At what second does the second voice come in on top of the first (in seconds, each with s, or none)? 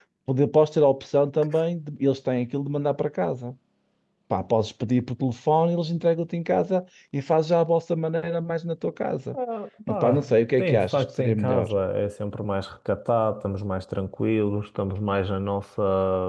9.9 s